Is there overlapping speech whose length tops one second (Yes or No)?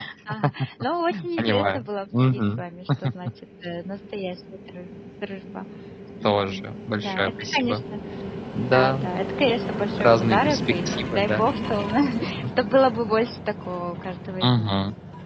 Yes